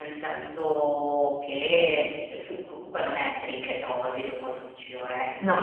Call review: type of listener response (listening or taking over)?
listening